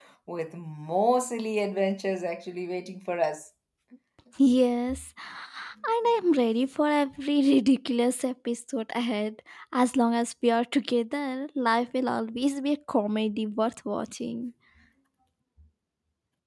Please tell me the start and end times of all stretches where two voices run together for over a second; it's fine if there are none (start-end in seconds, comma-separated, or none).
none